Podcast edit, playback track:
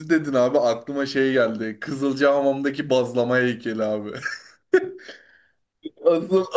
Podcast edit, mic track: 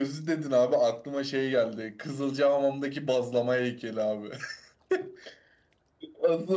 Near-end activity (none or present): none